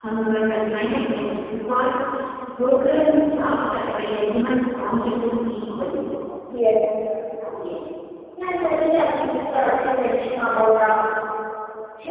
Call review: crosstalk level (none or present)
none